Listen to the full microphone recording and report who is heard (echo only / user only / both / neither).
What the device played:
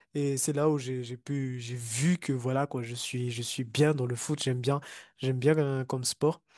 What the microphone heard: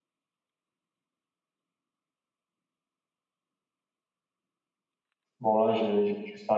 user only